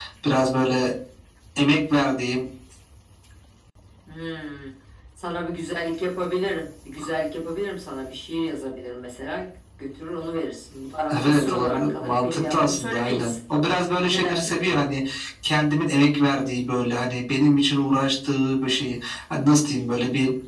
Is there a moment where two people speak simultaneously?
Yes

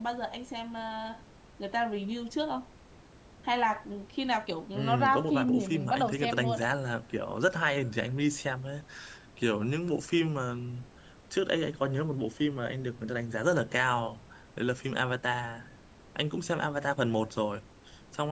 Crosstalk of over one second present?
Yes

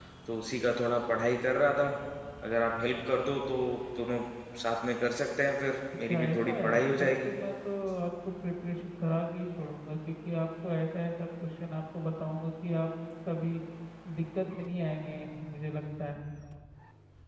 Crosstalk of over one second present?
Yes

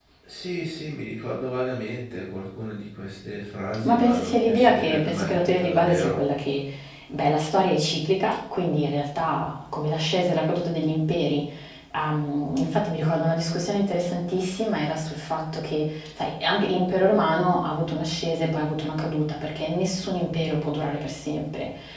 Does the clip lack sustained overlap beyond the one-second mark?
No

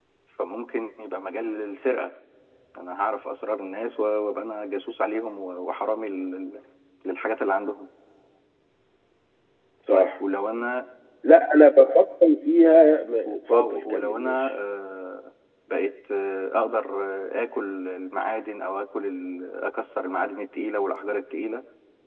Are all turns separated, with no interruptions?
No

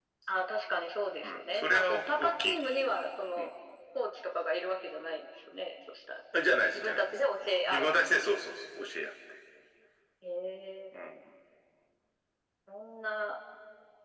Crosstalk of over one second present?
Yes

